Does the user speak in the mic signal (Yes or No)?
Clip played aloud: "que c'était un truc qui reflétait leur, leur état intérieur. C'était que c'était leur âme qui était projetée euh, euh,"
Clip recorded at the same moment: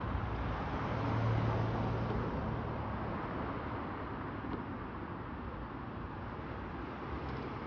No